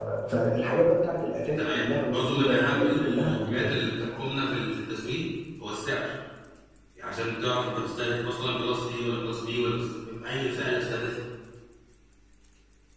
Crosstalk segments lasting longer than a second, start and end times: 1.6-3.8

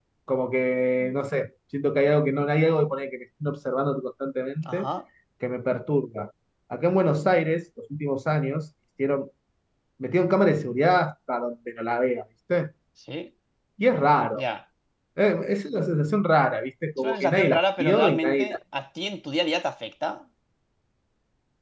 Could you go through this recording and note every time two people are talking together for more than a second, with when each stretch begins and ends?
17.0-18.6

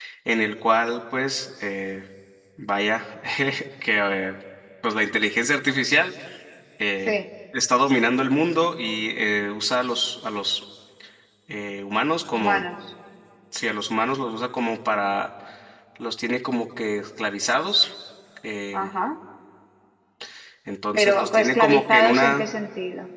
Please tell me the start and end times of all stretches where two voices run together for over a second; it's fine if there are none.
20.9-22.4

